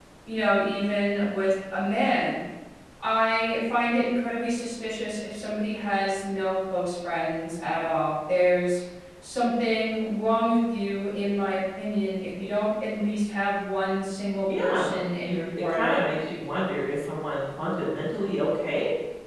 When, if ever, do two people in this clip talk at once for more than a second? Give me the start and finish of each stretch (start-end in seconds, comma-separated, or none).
14.6-16.0